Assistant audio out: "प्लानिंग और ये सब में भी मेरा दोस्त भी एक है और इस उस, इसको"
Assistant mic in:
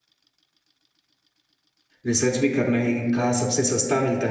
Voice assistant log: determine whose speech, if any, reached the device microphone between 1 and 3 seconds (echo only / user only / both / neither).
user only